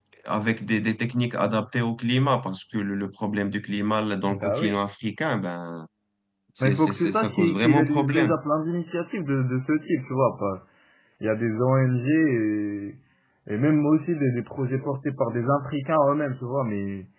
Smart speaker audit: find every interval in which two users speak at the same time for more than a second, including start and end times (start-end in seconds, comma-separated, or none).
6.6-8.3